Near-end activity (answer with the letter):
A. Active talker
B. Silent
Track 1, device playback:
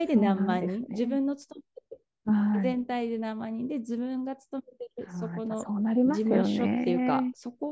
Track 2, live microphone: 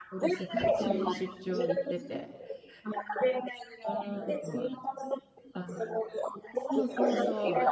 A